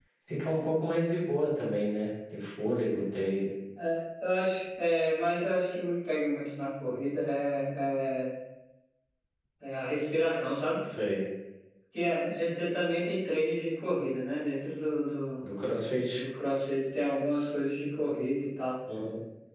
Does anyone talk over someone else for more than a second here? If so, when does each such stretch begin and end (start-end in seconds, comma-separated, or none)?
none